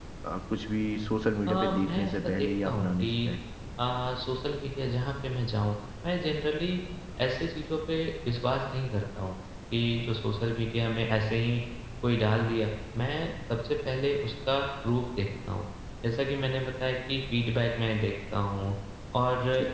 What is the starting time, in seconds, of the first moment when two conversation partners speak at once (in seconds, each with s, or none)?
1.5 s